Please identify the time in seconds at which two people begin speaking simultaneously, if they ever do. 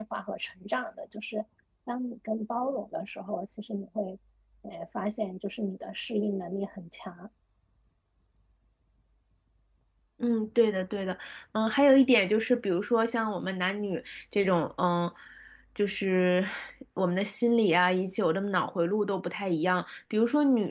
none

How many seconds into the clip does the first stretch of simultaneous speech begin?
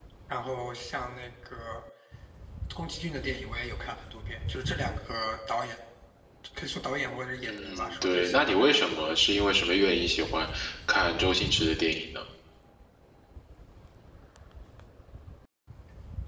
7.4 s

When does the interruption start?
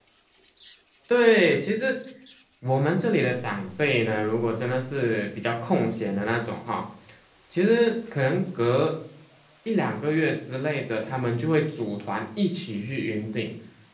none

